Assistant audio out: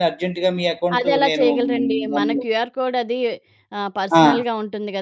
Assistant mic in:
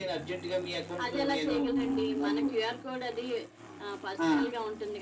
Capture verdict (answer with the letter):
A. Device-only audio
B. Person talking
A